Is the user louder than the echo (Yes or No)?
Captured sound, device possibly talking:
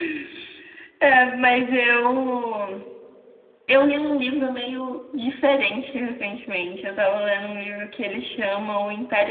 No